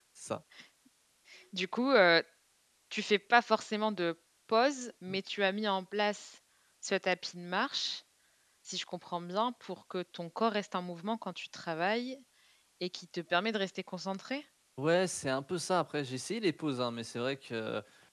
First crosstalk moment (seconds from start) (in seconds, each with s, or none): none